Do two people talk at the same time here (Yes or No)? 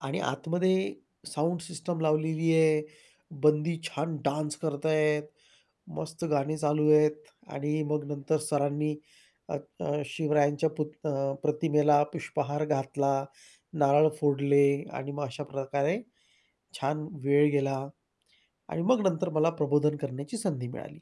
No